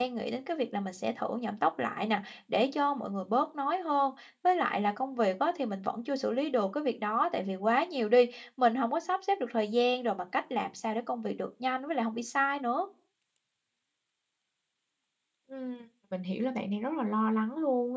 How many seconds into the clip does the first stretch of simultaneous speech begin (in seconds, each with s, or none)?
none